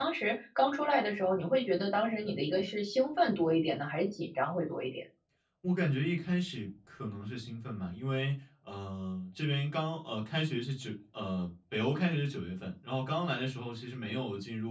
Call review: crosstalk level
none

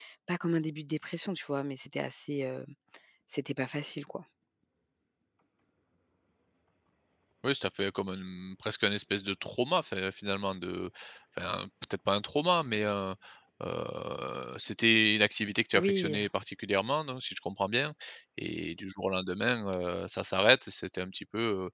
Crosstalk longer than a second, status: none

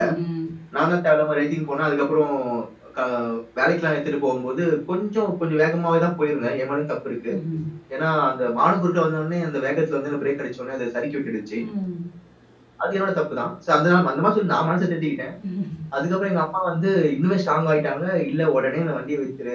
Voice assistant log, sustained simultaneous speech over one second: none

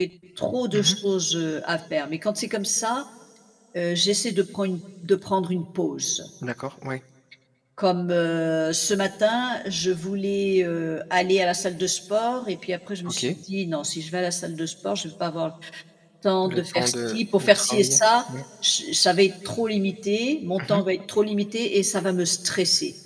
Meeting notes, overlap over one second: present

